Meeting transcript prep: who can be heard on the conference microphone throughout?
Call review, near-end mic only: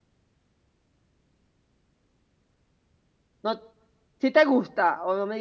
user only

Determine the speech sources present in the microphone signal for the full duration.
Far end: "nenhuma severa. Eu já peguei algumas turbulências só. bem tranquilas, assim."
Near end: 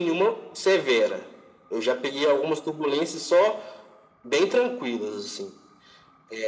echo only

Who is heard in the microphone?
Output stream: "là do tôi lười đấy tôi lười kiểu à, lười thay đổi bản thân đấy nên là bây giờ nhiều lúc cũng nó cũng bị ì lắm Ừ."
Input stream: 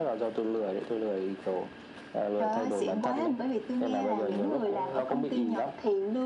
both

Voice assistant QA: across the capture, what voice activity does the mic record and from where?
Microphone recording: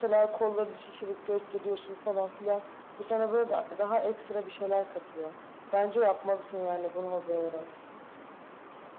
echo only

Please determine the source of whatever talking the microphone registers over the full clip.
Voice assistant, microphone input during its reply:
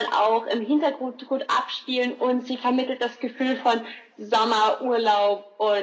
echo only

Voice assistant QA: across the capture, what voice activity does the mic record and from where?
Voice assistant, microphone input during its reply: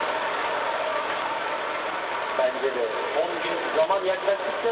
echo only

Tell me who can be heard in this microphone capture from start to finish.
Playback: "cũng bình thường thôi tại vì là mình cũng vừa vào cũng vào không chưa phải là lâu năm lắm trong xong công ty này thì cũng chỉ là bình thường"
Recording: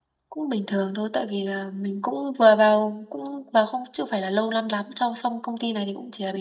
echo only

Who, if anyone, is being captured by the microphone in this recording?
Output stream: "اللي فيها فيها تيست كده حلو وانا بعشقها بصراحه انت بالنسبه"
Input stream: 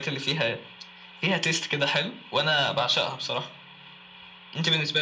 both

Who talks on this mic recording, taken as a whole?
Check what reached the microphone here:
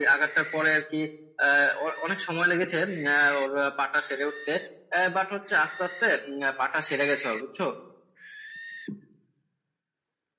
echo only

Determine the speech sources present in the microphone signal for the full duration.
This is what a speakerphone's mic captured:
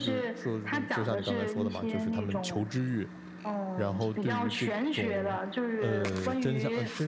both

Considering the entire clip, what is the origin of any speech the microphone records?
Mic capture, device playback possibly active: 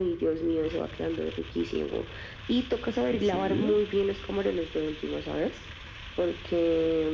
both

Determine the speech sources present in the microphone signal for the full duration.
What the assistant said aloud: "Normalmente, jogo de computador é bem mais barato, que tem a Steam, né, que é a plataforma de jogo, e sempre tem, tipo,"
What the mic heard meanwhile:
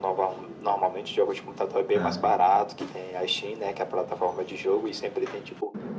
both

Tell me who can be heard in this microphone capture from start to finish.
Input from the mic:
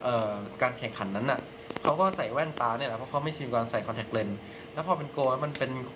user only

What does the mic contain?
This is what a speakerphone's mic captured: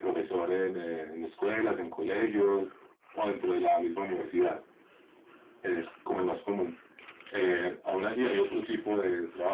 echo only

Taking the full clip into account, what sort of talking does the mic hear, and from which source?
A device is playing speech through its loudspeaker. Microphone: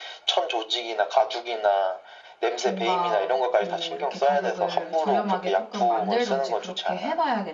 both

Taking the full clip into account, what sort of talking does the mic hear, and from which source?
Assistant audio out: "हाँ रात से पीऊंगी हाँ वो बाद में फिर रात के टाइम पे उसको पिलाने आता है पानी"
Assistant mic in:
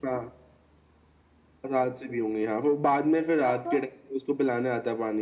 both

